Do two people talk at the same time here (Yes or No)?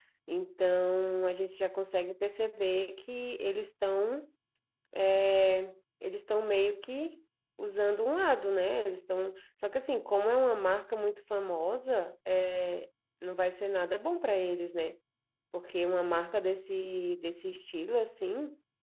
No